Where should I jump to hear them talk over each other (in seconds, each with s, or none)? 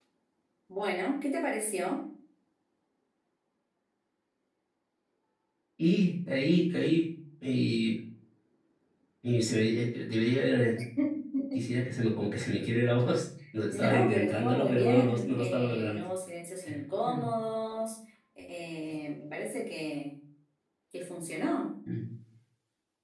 13.7 s